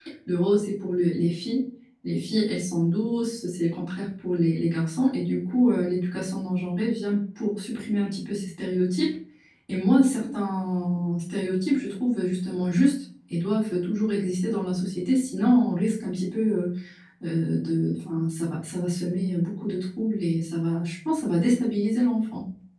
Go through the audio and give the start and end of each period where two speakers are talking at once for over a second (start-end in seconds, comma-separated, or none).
none